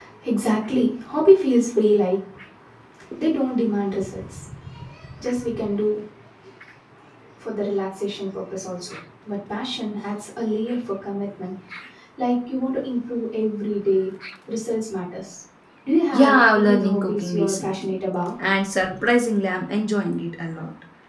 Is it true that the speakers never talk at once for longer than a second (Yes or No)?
No